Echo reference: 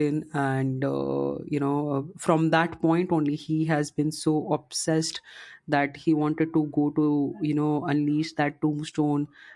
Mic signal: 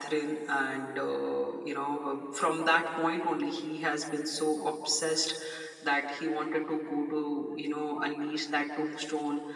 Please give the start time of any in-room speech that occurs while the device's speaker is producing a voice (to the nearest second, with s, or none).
none